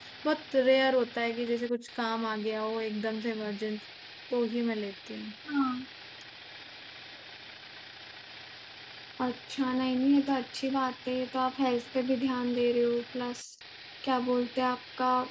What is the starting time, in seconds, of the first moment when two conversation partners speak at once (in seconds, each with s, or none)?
none